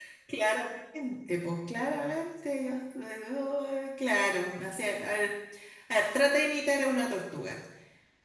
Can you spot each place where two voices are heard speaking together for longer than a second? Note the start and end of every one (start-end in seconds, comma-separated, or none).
none